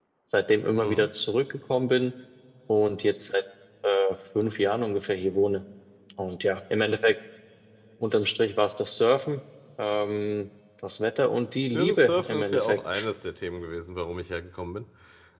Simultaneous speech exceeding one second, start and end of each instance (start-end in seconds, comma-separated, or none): 11.7-13.1